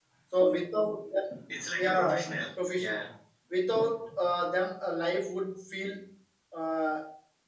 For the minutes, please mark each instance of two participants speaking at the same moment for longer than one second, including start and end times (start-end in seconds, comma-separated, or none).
none